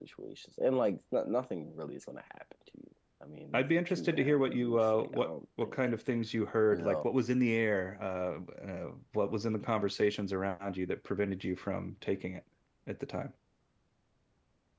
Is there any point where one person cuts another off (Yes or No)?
Yes